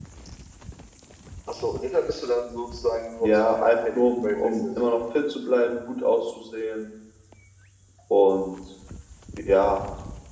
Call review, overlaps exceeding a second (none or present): present